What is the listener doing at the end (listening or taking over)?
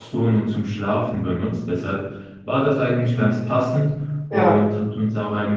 listening